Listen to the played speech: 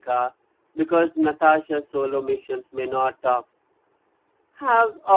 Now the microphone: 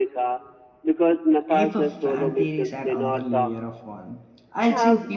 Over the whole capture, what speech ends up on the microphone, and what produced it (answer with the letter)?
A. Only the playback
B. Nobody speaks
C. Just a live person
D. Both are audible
D